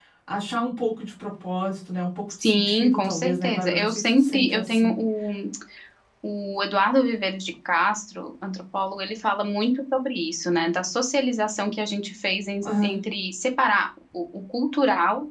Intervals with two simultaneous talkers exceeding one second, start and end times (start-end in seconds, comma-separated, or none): 2.4-5.0